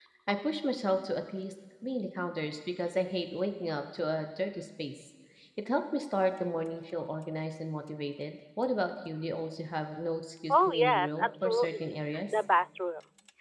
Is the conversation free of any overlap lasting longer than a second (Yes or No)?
No